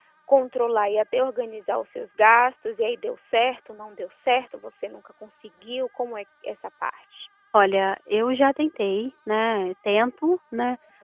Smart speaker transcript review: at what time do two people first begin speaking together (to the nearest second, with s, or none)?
none